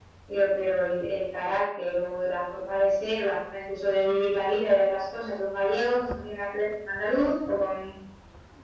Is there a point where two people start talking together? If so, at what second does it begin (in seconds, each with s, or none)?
none